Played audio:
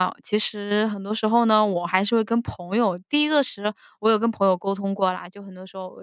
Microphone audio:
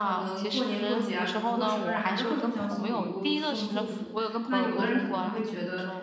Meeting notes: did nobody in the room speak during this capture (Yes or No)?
No